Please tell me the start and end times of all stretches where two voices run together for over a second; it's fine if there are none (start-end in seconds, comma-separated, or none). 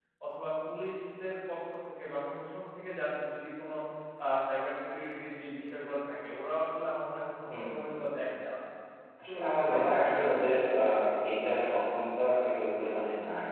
9.3-10.6